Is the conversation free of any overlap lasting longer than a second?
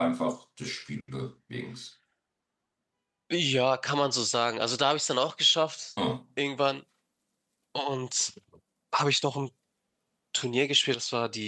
Yes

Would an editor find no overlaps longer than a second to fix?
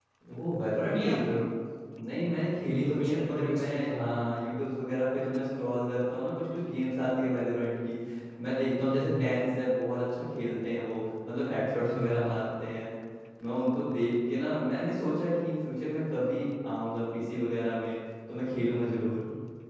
No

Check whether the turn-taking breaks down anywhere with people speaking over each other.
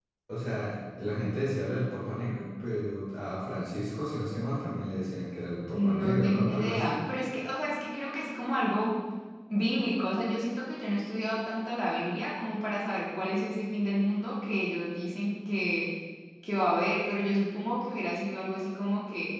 Yes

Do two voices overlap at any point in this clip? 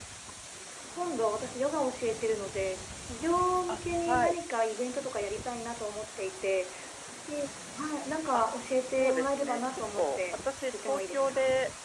Yes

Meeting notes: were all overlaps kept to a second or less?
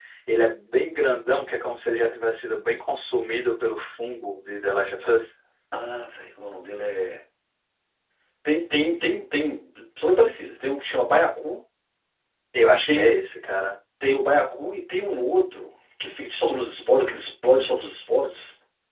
Yes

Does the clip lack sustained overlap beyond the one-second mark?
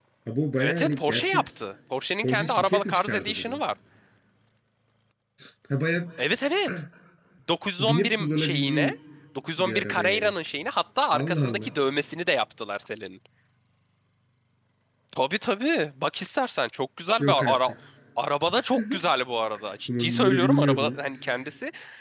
No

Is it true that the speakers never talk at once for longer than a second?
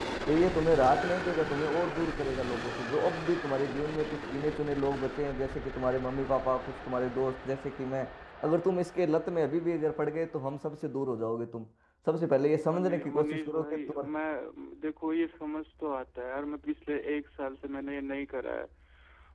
No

